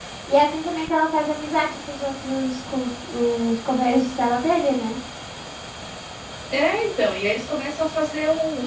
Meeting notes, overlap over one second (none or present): none